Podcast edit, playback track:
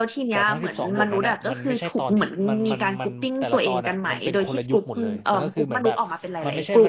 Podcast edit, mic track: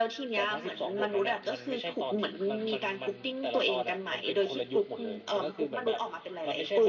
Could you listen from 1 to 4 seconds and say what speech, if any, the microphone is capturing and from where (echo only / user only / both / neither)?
echo only